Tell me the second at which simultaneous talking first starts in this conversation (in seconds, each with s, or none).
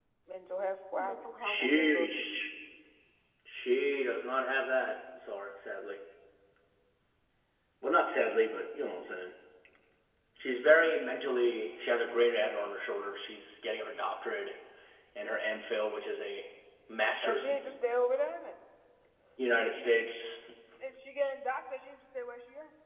1.0 s